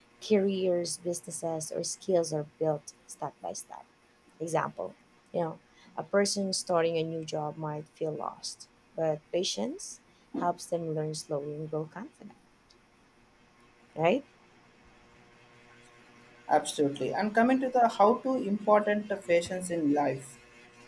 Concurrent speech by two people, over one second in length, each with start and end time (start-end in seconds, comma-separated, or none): none